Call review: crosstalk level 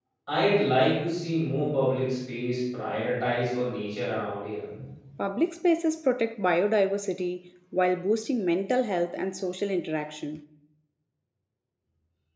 none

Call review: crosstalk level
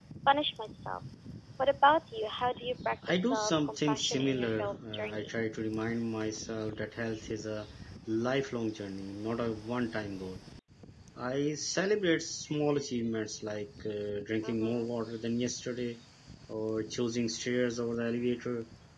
present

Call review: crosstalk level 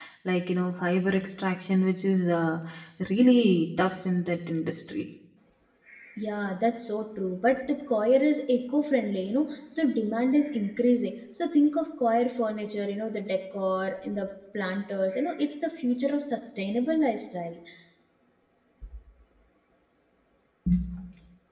none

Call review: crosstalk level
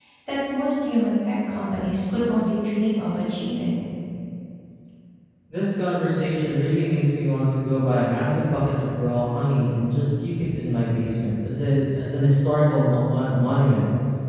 none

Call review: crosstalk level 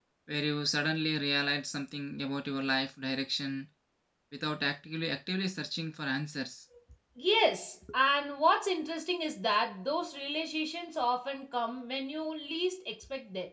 none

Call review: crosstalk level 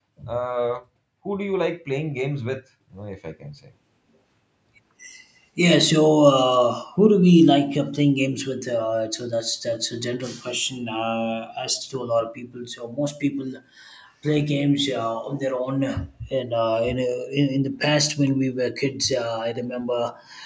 none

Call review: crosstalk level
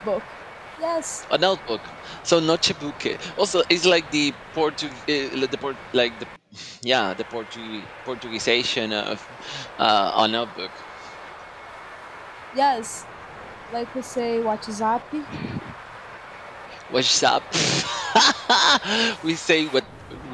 none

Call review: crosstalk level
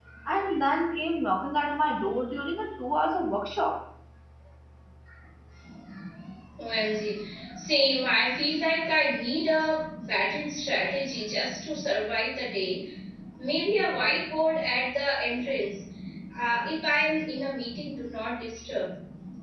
none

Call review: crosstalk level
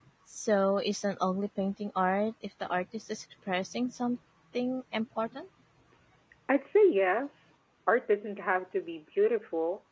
none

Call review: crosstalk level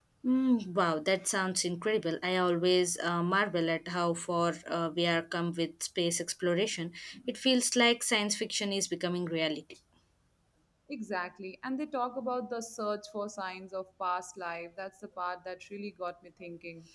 none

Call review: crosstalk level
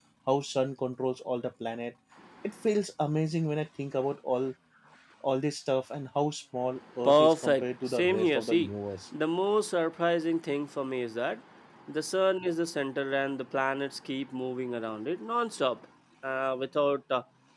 present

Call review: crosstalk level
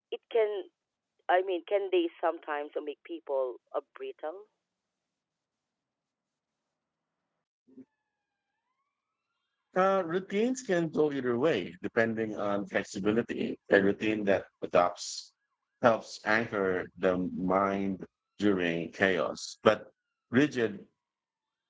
none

